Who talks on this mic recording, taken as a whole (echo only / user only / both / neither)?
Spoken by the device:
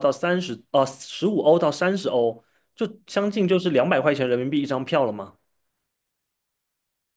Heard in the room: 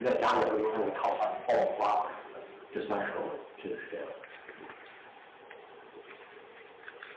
user only